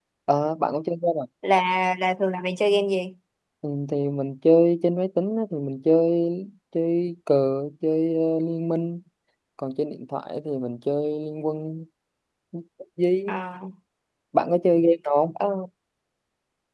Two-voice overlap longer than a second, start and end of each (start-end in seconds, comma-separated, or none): none